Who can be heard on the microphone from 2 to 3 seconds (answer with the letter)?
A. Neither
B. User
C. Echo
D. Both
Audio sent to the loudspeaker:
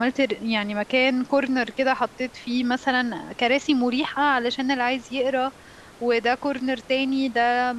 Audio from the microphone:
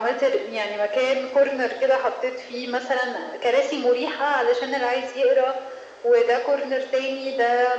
C